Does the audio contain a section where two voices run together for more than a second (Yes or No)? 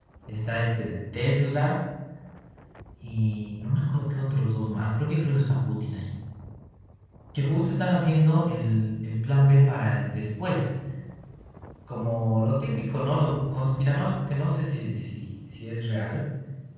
No